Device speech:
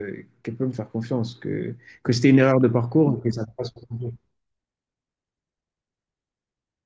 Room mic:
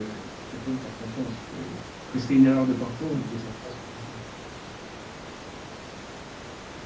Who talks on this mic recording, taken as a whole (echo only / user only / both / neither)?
echo only